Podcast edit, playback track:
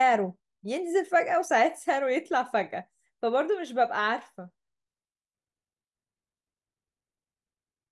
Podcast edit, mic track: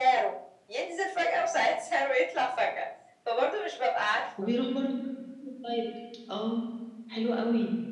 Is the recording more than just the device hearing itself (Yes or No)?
Yes